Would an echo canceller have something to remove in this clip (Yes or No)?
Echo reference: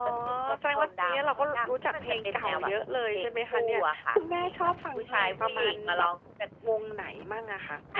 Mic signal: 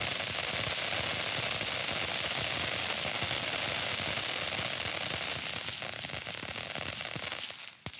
No